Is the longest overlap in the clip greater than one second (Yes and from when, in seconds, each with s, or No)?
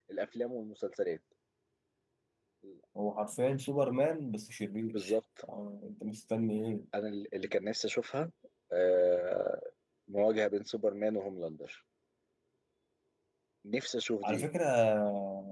No